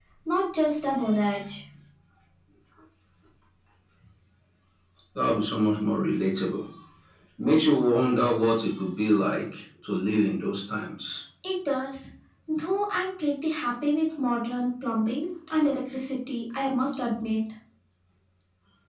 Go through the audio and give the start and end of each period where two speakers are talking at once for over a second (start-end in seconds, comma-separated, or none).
none